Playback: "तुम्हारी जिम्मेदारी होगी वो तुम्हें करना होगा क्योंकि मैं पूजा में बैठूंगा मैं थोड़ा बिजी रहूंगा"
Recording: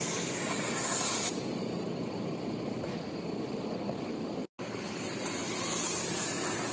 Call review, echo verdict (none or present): none